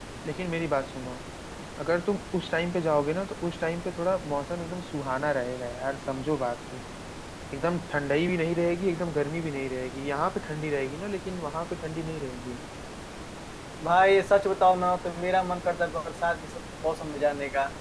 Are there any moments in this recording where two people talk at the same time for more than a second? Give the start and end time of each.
none

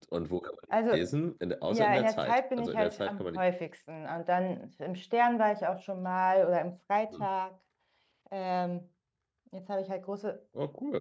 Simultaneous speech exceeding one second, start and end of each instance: 1.7-3.4

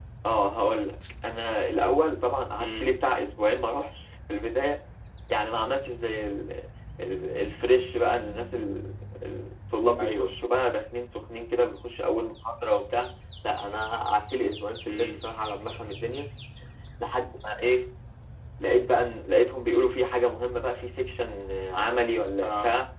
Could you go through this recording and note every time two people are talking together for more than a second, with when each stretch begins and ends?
none

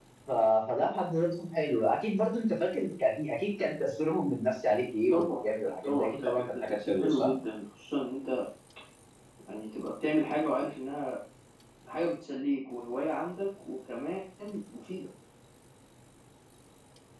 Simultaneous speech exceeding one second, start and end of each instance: 5.8-7.3

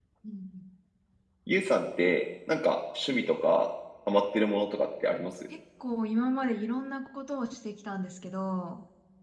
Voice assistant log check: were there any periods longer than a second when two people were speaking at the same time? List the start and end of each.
none

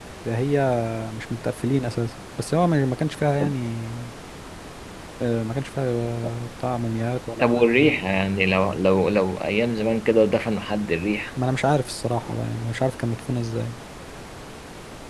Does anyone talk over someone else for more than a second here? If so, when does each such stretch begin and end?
none

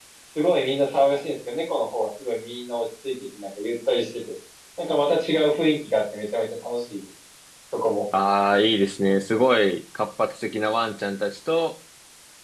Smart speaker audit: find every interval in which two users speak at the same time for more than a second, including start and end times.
none

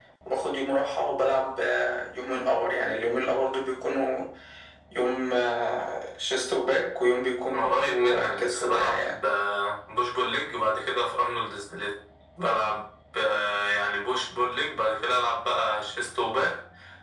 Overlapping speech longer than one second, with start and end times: 7.5-9.1

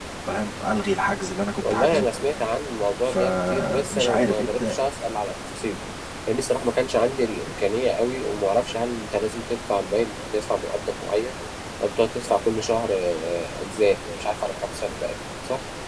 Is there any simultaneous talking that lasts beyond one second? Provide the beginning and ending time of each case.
3.0-4.7

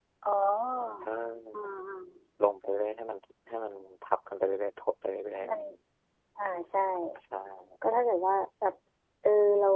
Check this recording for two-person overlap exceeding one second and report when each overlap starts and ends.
none

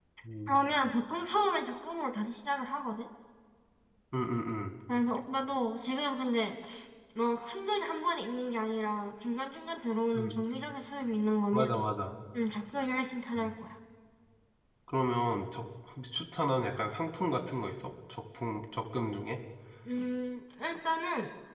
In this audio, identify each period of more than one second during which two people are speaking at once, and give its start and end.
none

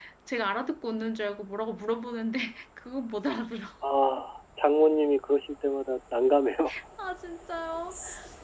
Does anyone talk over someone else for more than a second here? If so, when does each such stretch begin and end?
none

